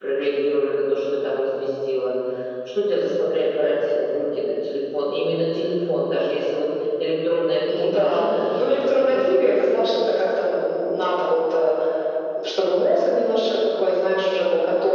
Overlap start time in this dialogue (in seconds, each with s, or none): 7.7 s